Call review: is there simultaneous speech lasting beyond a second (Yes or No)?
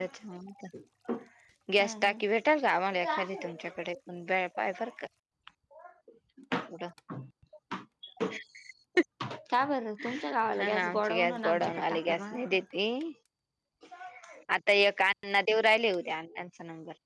Yes